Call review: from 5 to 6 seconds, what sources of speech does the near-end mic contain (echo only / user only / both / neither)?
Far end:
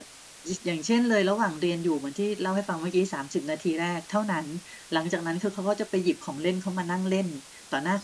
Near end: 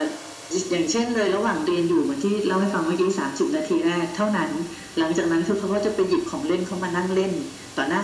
echo only